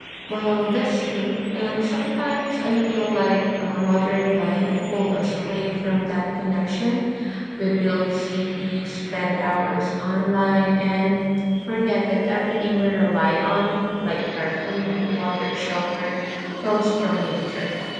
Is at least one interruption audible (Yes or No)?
No